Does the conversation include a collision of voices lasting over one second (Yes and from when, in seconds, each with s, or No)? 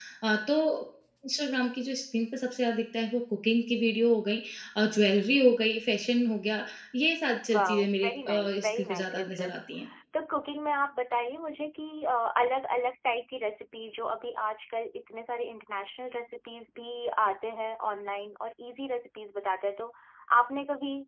Yes, from 7.5 s